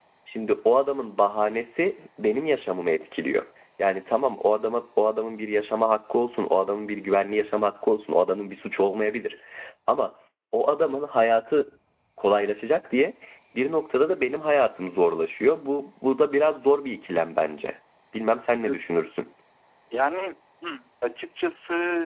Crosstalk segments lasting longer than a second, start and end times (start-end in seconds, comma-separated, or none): none